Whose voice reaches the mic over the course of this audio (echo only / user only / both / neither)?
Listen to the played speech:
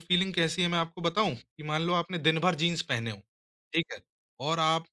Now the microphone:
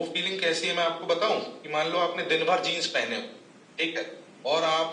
echo only